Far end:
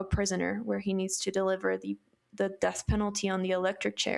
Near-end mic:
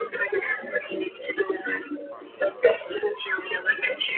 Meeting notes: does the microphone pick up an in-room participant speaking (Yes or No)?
Yes